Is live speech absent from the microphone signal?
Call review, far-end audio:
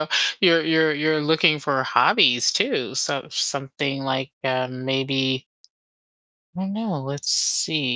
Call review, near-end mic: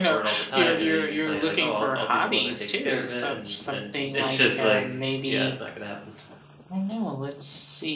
No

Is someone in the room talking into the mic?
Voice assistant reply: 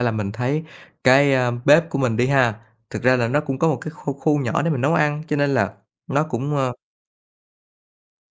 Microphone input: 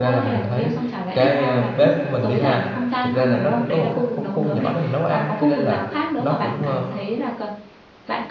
Yes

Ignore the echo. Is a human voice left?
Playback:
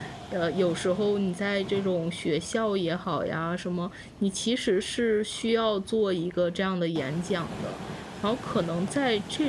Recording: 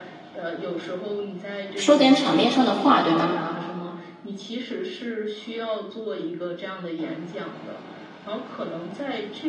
Yes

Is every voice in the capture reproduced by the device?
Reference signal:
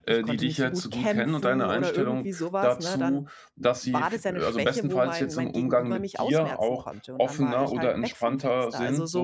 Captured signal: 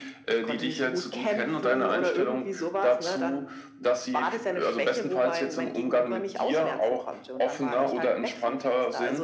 Yes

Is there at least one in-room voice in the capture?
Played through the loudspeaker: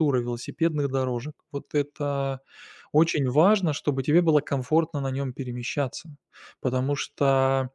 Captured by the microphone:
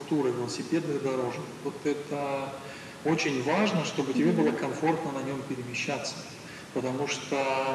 Yes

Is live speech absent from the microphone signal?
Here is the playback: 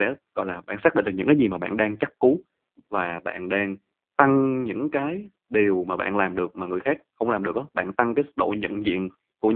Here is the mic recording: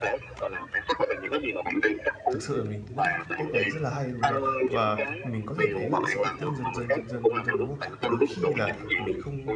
No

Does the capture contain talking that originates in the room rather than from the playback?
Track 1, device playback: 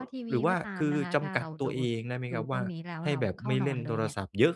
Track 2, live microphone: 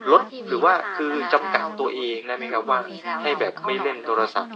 Yes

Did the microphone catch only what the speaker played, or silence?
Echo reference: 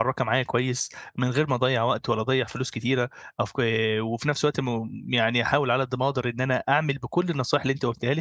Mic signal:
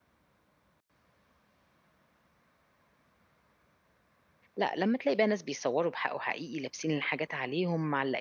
No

